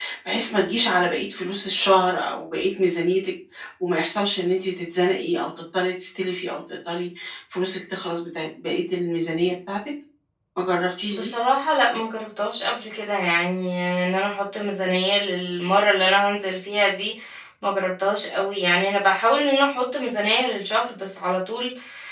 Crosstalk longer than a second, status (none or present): none